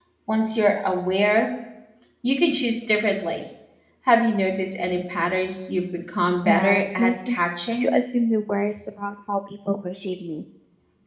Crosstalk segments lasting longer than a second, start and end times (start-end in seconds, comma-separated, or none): 6.4-7.9